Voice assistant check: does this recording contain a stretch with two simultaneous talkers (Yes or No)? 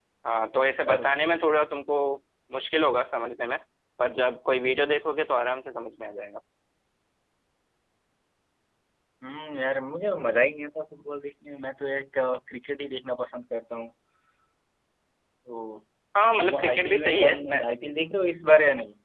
Yes